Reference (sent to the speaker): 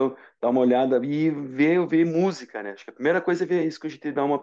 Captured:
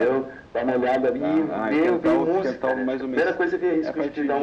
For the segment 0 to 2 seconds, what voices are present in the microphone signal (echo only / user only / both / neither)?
both